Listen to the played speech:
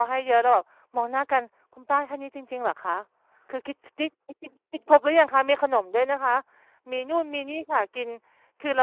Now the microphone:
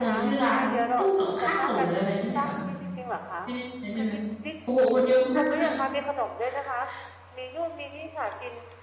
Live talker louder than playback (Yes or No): Yes